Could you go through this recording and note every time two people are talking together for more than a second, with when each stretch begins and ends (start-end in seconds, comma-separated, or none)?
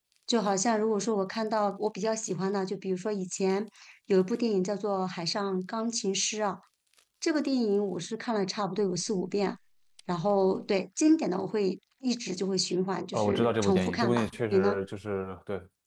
13.0-14.8